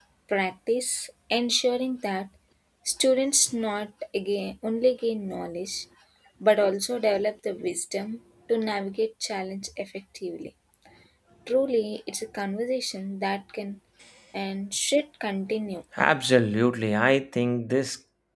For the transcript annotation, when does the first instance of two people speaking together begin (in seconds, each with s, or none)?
none